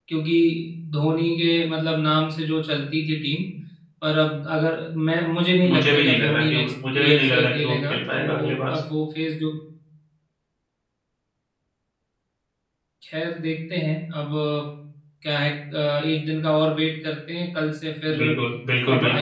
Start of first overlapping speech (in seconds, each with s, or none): 5.7 s